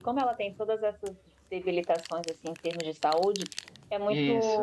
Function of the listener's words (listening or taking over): listening